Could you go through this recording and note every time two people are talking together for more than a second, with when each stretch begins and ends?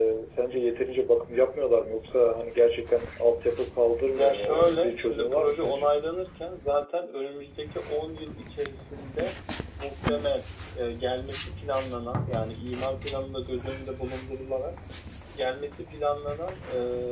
4.1-5.9

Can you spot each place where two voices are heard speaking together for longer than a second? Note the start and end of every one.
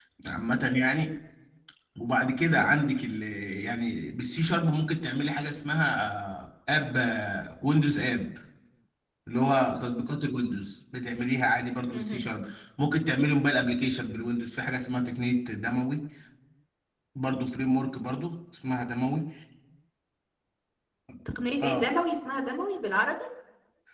none

